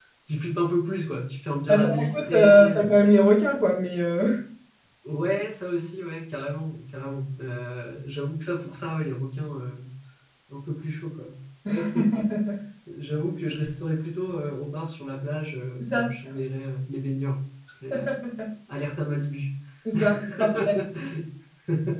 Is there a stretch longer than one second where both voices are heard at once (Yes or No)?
Yes